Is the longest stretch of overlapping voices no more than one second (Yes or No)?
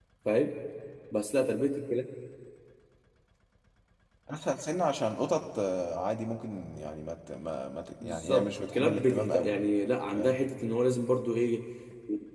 No